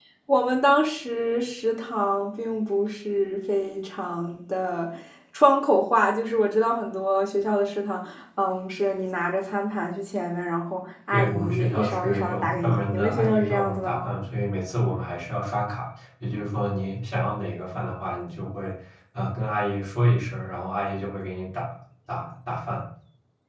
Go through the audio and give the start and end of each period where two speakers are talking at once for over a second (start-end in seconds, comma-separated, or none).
11.1-14.1